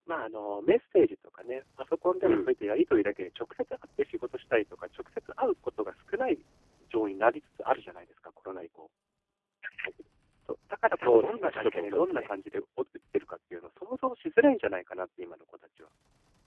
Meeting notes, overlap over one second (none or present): present